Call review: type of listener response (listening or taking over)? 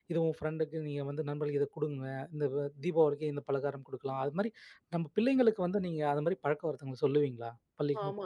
taking over